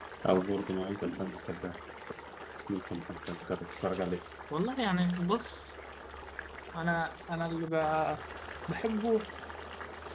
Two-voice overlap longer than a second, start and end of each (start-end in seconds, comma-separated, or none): none